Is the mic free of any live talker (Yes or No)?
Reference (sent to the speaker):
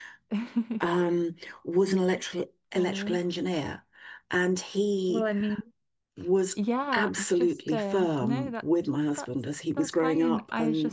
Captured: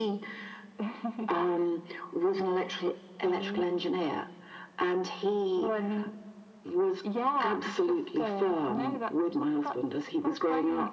Yes